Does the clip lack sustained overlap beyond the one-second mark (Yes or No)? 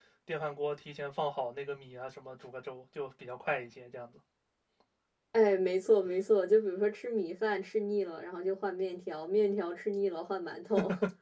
Yes